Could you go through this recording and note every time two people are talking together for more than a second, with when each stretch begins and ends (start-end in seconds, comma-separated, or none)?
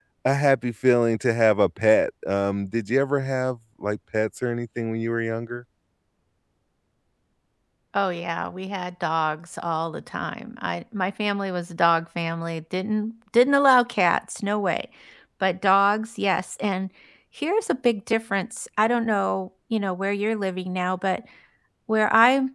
none